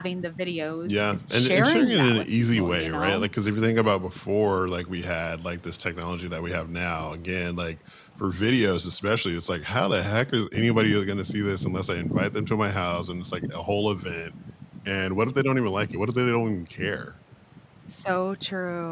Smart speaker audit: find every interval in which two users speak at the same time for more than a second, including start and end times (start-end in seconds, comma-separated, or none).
0.9-3.3